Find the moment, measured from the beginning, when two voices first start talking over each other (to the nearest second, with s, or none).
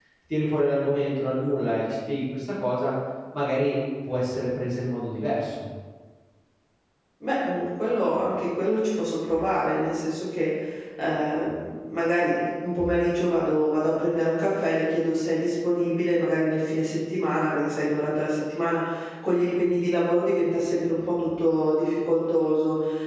none